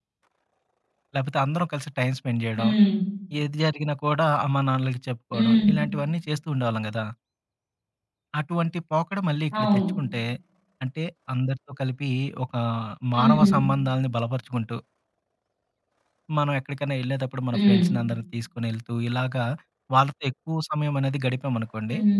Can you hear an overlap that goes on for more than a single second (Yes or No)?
No